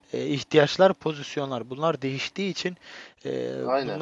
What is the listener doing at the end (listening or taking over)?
listening